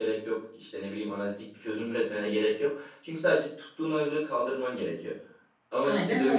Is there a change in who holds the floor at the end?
No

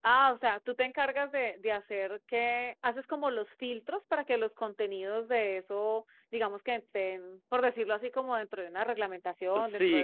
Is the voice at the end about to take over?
Yes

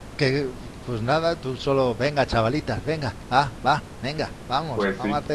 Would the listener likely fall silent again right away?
No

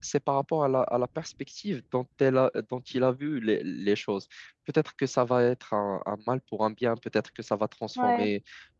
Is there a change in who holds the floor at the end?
No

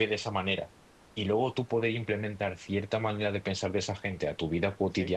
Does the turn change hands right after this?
No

